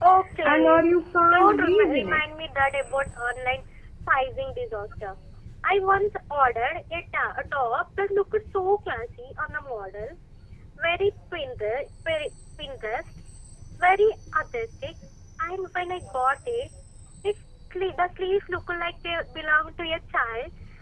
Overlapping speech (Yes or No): Yes